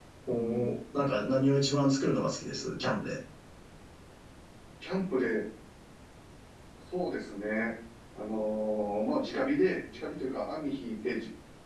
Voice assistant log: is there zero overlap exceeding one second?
Yes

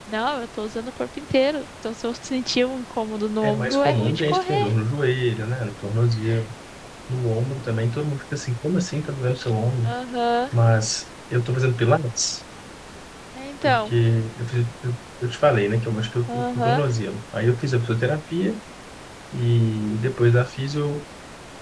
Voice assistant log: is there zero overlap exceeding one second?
No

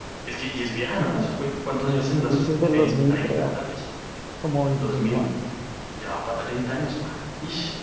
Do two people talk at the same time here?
Yes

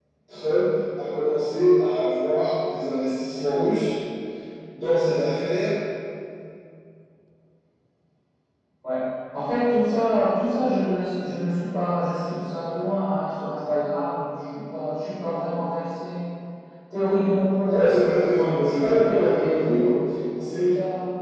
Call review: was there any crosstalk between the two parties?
Yes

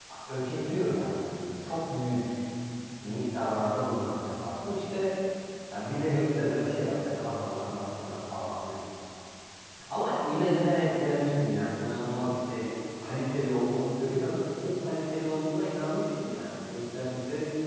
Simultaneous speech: No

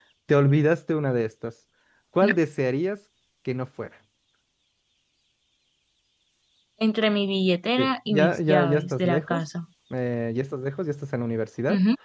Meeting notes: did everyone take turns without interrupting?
No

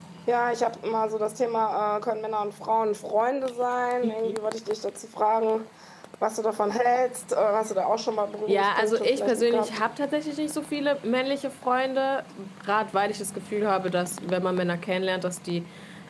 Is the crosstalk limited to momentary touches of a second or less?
No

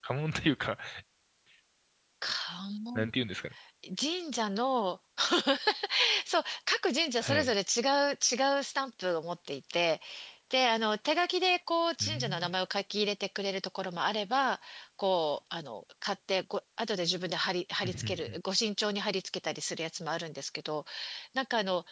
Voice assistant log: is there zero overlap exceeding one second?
Yes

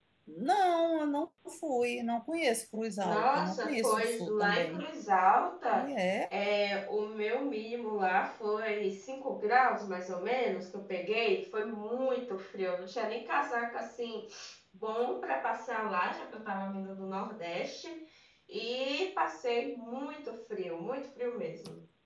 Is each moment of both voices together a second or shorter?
No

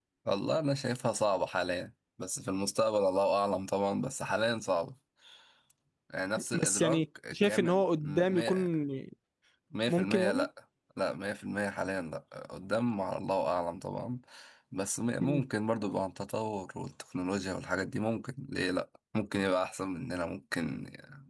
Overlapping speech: Yes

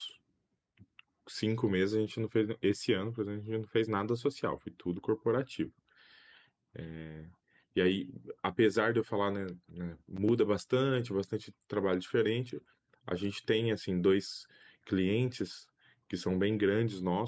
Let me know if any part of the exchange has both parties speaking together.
No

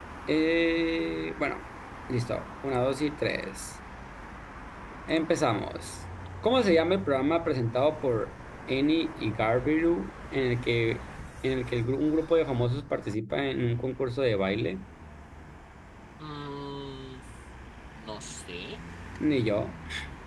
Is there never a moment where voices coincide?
Yes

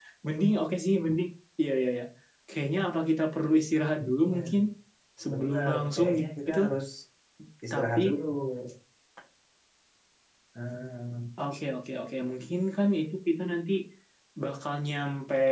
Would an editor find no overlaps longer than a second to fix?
No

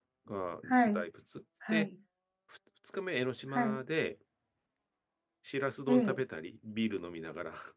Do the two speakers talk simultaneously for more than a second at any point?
No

